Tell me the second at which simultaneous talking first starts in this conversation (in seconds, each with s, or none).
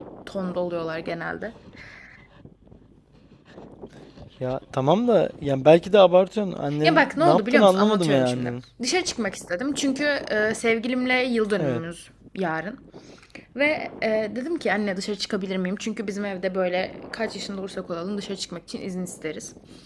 6.8 s